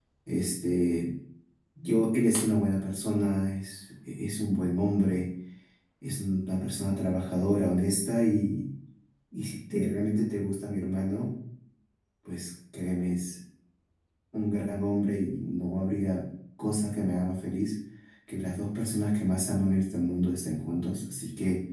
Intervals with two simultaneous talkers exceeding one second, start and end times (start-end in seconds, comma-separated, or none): none